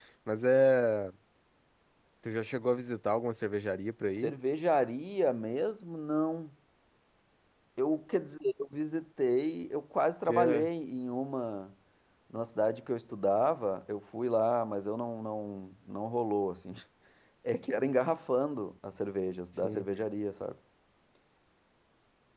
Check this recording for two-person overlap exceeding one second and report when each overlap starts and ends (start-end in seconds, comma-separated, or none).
none